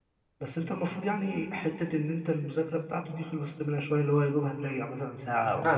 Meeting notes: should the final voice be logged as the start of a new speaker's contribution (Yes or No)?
Yes